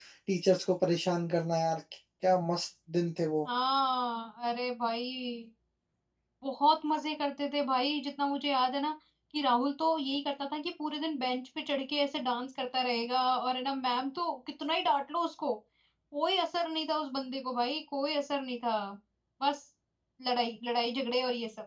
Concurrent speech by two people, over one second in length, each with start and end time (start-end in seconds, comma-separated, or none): none